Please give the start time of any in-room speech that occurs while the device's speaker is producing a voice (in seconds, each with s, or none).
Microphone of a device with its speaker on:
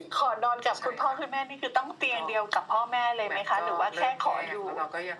none